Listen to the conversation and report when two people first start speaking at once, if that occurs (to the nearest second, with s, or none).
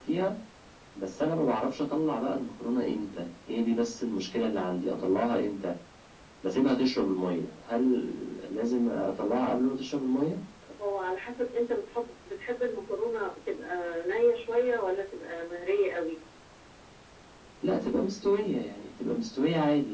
none